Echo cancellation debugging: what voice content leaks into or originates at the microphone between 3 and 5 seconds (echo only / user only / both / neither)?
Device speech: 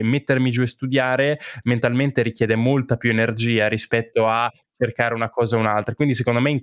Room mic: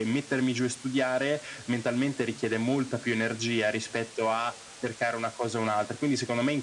echo only